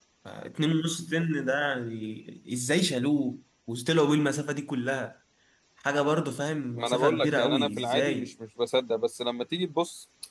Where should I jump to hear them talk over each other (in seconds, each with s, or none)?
6.8 s